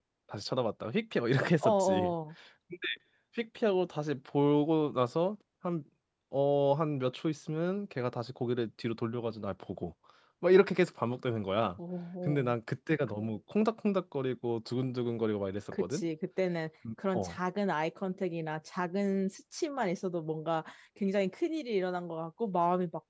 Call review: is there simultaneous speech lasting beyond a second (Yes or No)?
No